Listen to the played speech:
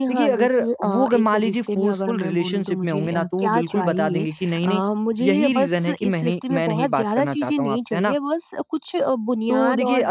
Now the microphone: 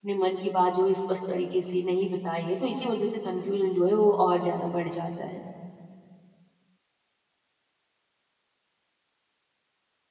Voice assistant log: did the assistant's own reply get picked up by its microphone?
No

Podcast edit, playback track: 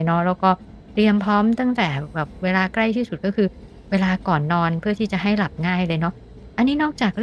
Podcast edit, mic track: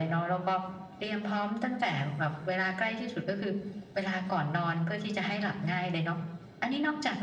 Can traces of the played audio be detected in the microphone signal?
Yes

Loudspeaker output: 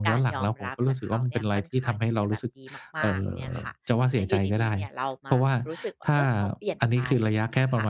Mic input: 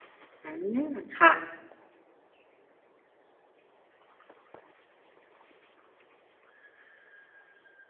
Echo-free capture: Yes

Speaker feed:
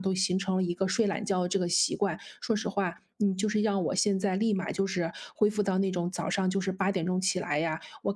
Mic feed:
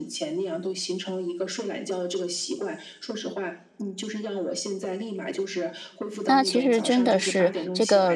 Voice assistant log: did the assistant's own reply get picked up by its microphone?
Yes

